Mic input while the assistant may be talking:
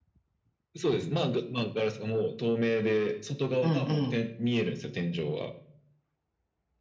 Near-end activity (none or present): present